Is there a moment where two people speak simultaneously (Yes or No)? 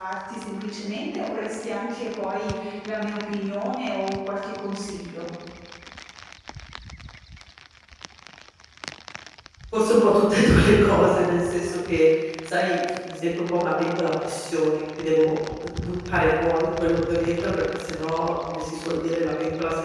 No